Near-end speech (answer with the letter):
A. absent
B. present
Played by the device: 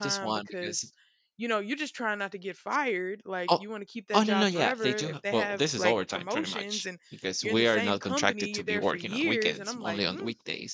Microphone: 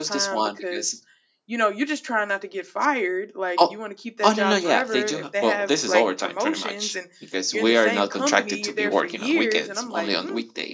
A